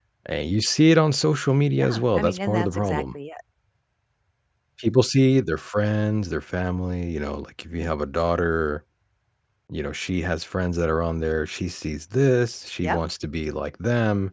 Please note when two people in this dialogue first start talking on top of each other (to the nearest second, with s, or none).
2 s